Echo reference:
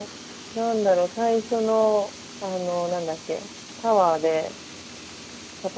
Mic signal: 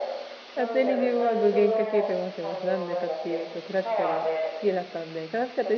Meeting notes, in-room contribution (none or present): present